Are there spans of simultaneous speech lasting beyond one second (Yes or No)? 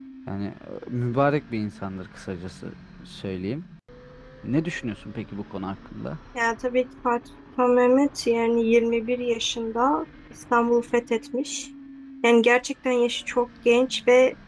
No